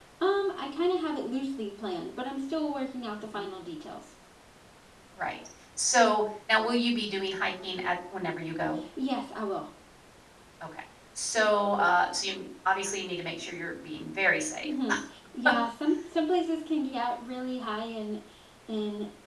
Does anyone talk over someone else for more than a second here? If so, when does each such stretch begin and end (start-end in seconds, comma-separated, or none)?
none